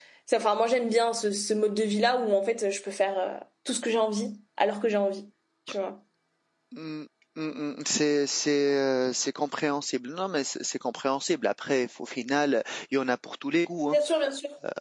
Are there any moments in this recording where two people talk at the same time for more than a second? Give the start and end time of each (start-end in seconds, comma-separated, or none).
none